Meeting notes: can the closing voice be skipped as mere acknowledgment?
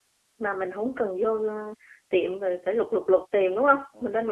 No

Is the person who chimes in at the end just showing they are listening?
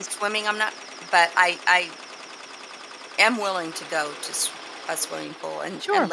No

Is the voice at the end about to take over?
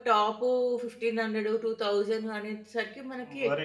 Yes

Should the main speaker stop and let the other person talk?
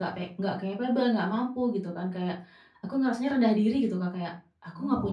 No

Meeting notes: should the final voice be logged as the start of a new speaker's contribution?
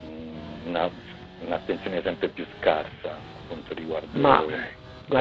Yes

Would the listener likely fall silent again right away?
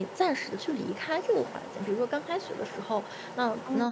Yes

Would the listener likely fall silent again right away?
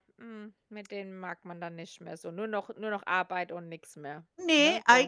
No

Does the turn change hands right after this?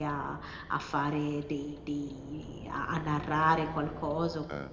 No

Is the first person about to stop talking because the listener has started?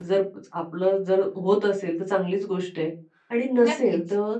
No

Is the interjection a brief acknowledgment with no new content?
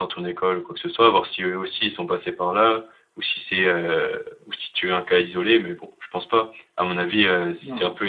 Yes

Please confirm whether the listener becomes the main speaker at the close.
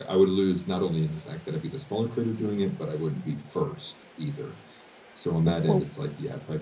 No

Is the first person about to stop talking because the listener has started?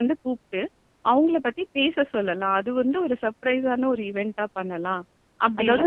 Yes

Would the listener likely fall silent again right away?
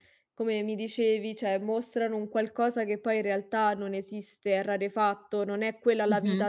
Yes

